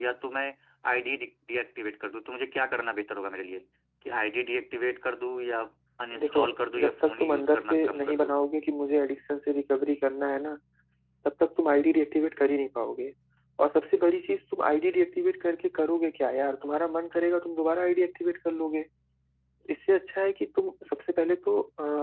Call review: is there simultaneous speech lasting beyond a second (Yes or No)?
Yes